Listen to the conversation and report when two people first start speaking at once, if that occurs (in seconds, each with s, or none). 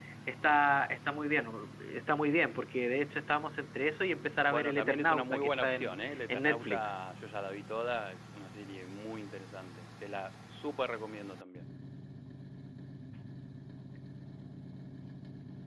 4.5 s